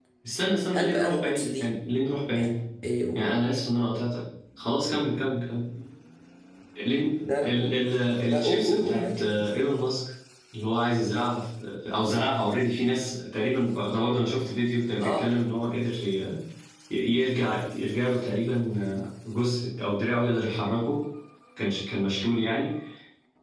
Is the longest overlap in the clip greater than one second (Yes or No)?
Yes